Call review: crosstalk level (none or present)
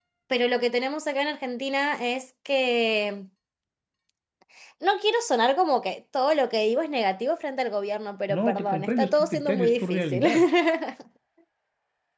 present